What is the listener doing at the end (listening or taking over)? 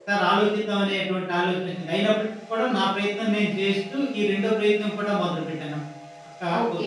taking over